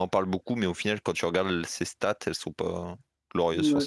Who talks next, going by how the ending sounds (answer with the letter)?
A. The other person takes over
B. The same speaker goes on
A